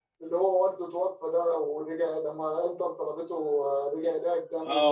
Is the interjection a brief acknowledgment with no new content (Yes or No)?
No